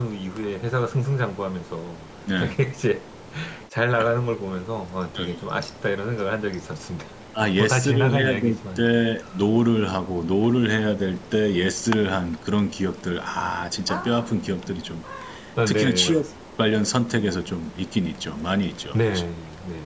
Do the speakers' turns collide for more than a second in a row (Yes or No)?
Yes